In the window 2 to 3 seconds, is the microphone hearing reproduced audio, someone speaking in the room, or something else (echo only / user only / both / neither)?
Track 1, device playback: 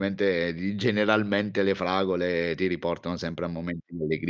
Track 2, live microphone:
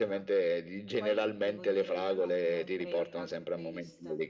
both